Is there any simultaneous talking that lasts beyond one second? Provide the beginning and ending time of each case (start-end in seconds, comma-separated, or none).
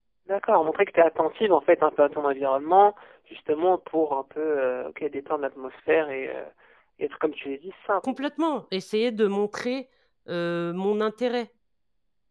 none